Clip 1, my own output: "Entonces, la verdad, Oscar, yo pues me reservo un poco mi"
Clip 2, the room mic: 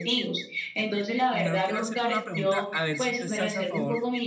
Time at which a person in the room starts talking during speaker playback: 1 s

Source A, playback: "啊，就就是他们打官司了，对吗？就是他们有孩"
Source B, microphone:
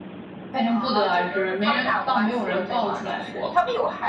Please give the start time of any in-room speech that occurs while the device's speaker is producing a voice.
1 s

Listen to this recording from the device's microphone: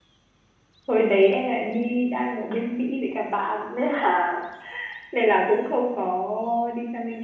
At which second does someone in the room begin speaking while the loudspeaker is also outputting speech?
1 s

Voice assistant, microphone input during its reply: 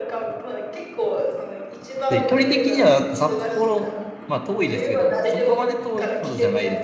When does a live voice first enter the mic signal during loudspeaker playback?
2 s

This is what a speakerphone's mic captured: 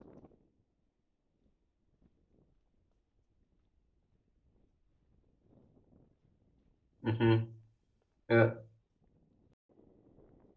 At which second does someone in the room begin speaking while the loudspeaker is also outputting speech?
7 s

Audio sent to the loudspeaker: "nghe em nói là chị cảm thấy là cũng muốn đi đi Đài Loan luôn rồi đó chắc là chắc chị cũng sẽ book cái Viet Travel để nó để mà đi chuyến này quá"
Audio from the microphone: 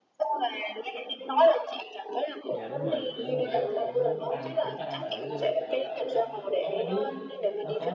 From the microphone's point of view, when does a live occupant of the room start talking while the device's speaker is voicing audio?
2 s

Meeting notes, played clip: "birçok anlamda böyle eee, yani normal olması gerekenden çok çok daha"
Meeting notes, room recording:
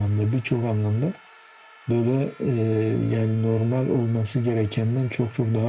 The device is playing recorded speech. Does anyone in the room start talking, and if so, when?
none

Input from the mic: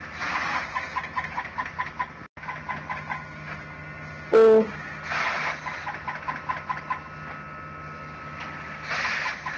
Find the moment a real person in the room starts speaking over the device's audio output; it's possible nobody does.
4 s

